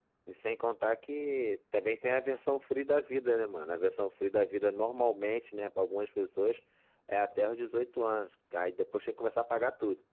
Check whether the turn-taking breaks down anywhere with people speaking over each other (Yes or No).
No